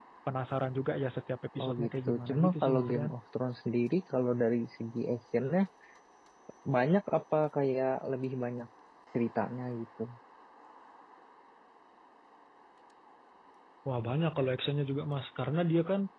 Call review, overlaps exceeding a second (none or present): present